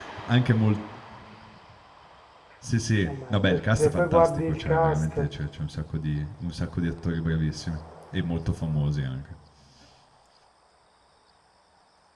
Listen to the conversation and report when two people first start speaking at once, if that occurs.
3.0 s

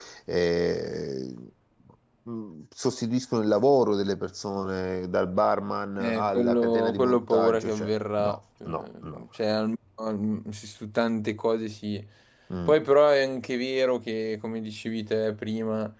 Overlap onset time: 6.0 s

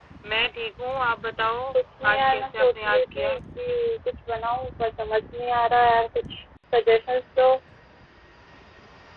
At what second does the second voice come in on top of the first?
2.1 s

